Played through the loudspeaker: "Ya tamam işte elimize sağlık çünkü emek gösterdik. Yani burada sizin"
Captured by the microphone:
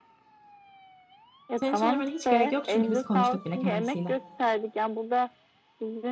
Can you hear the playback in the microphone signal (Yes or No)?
Yes